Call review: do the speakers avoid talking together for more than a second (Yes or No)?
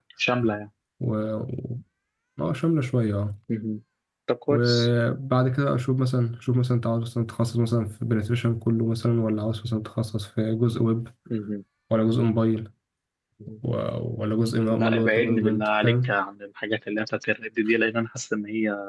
No